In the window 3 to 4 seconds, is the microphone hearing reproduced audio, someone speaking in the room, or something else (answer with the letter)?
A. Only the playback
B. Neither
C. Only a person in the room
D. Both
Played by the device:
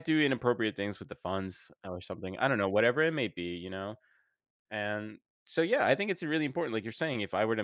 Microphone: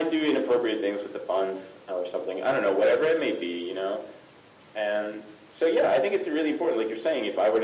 A